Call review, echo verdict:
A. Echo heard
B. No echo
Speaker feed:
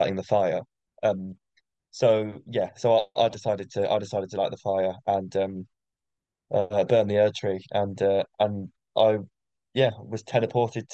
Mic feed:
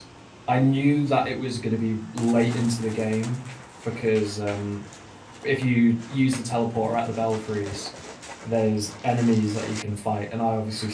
B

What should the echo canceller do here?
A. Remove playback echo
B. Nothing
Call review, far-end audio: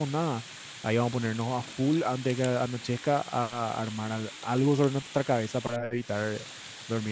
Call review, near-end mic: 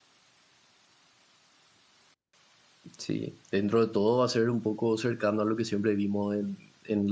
B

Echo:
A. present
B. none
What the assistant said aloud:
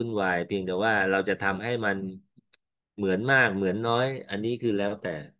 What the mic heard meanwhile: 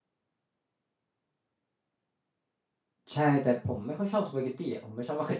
B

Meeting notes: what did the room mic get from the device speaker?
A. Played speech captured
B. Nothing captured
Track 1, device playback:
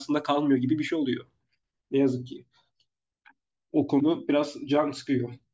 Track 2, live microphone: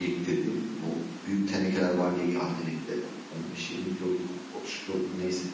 B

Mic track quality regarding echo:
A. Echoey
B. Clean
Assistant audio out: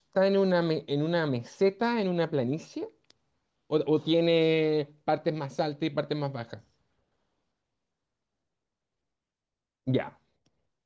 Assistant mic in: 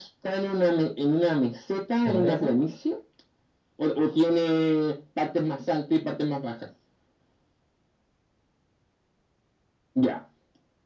A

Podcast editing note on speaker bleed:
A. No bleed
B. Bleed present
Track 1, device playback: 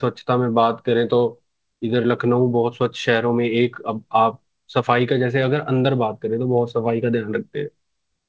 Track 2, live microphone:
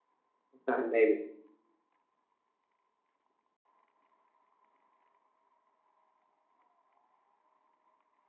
A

